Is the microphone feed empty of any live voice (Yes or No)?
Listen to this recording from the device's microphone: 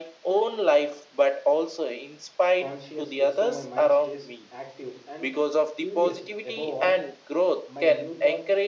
No